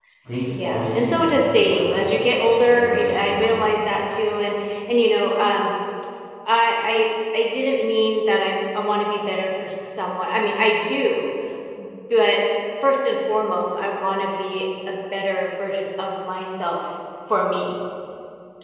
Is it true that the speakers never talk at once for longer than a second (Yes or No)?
No